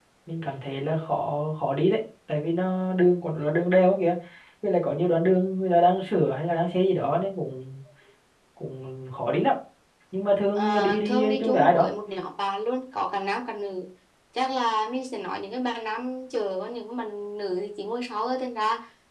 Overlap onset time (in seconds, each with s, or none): 10.6 s